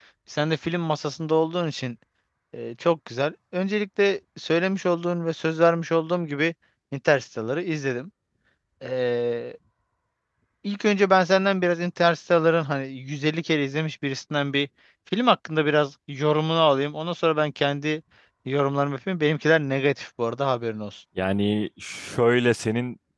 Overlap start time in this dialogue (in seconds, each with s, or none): none